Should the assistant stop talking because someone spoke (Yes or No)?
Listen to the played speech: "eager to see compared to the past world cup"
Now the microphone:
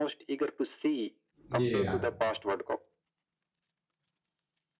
Yes